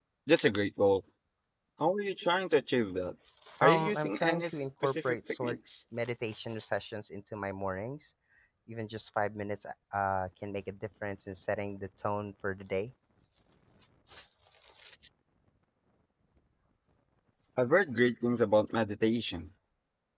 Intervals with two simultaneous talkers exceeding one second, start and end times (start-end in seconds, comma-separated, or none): 3.6-5.6